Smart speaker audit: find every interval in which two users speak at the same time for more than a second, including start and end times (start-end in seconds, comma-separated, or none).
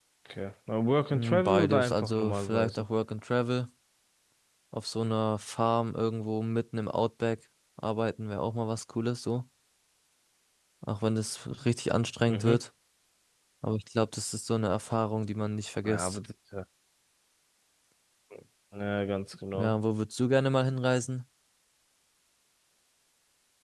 1.1-2.9